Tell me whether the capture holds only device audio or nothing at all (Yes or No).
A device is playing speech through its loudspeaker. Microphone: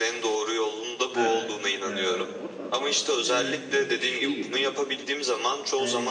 No